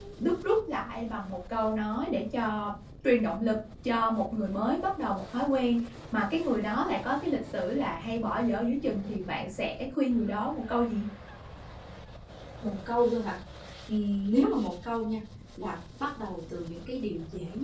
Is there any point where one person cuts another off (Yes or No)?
No